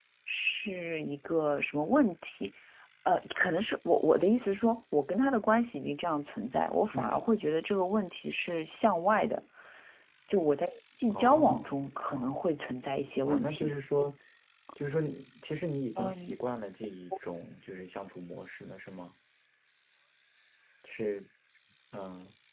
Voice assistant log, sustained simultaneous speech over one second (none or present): present